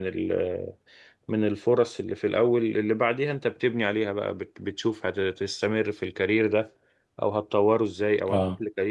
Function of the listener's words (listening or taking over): listening